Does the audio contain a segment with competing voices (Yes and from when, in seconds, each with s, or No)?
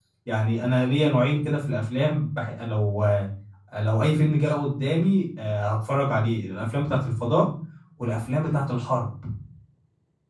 No